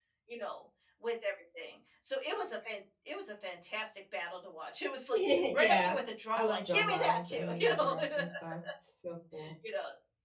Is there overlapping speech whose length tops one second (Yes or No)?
Yes